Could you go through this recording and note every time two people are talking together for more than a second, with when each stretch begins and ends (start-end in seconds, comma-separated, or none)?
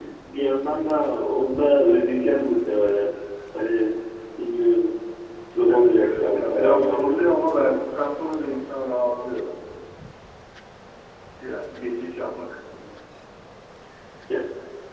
5.7-7.1